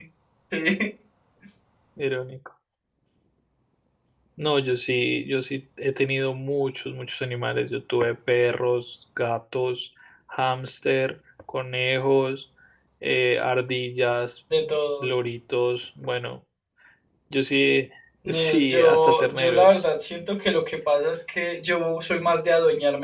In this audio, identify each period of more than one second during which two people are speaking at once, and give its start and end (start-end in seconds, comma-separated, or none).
18.3-19.8